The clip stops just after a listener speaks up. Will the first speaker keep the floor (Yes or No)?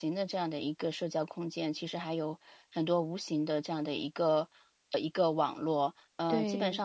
Yes